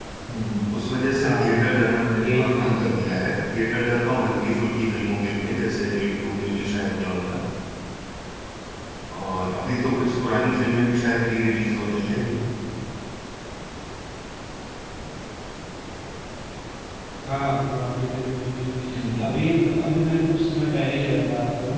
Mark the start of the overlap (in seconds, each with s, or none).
1.2 s